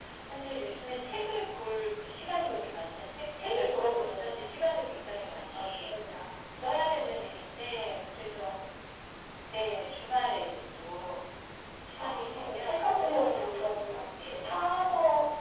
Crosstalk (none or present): present